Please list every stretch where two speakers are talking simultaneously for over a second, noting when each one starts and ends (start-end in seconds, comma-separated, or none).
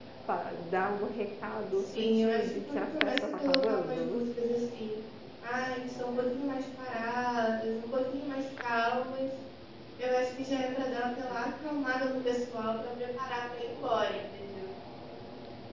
1.9-4.2